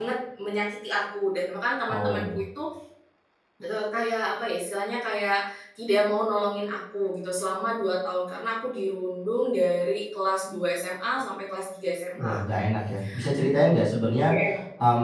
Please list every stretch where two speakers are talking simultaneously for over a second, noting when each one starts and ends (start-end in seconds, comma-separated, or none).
none